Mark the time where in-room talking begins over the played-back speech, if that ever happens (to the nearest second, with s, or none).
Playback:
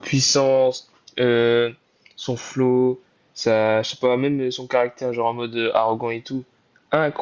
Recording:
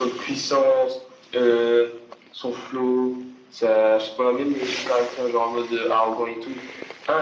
none